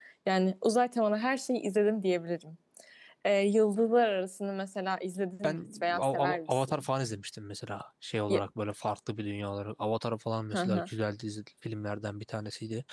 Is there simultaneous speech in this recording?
Yes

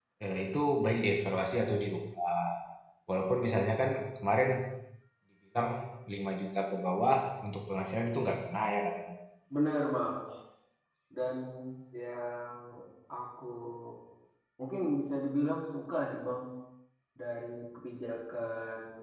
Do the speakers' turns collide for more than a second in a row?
No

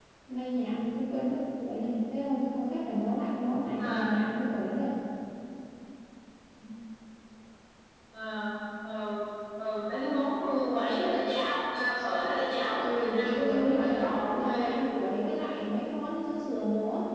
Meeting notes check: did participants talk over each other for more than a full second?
Yes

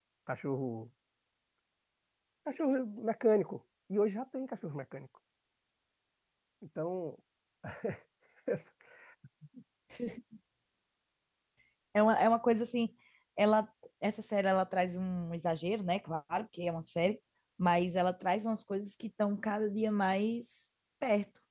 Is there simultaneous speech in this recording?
No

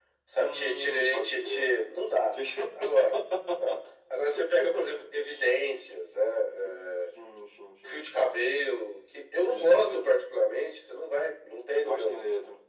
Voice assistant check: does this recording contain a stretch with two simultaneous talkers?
Yes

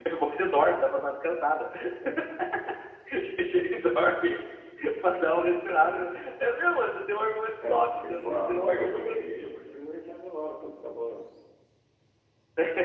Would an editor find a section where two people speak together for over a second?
Yes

